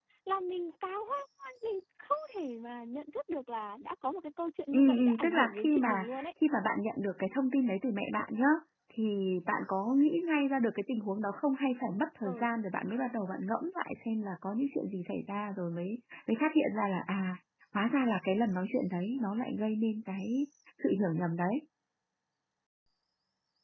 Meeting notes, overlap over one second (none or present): present